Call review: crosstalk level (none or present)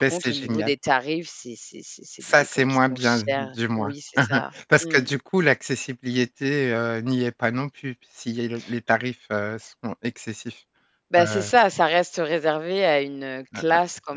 present